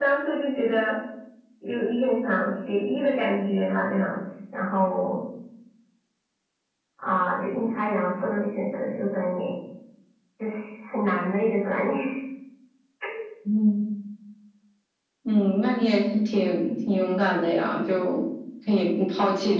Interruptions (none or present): none